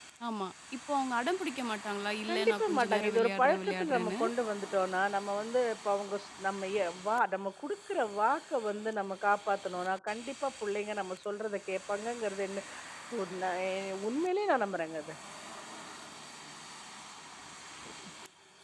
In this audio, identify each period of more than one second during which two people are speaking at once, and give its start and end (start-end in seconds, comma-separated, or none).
2.3-4.2